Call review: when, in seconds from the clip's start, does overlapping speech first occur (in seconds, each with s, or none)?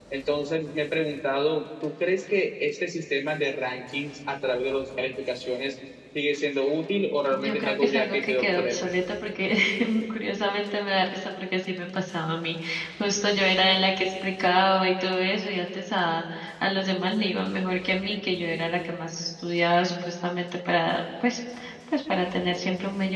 7.3 s